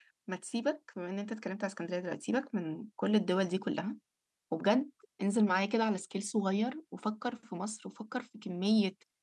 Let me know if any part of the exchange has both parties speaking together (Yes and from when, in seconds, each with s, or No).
No